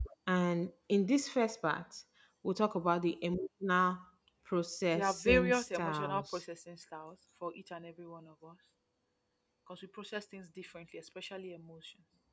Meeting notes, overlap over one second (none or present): present